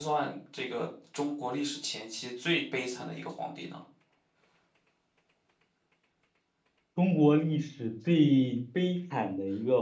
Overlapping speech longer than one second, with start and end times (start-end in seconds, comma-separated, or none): none